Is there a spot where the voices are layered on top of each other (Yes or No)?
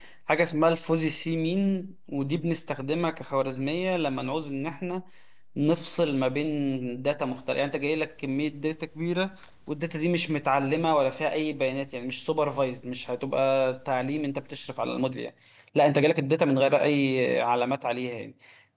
No